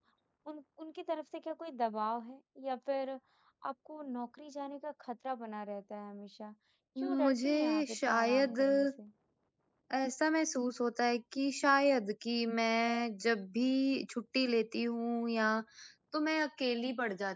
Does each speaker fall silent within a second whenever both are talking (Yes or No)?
No